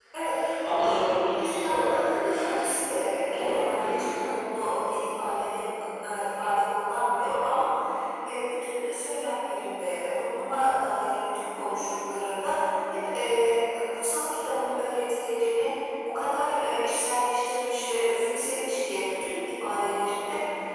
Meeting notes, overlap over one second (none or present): present